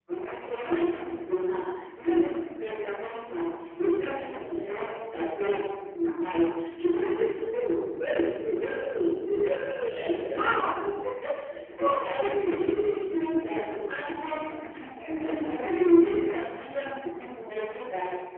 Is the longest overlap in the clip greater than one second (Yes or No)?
Yes